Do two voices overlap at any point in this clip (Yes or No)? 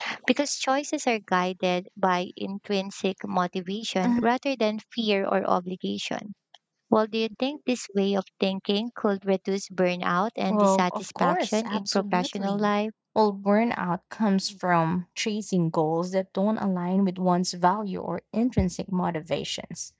Yes